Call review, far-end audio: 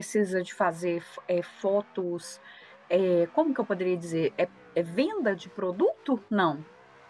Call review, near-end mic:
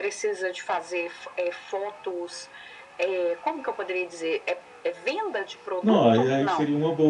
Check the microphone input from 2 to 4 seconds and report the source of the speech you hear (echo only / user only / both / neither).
echo only